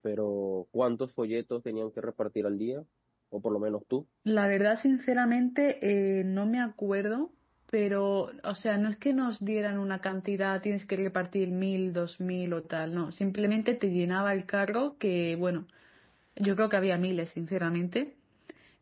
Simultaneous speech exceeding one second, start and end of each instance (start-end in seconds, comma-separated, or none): none